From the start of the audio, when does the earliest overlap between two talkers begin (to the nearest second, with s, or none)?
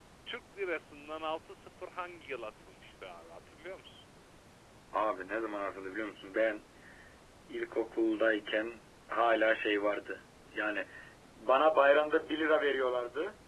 none